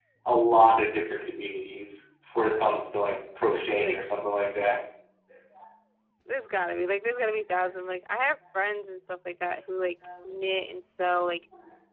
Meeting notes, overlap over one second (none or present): none